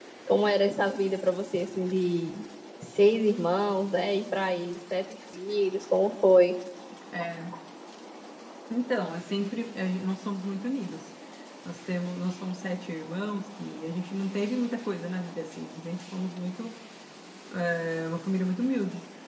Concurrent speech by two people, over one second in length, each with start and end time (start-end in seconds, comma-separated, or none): none